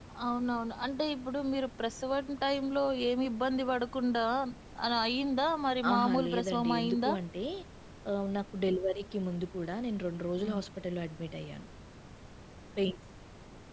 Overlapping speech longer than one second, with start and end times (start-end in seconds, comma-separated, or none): 5.9-7.1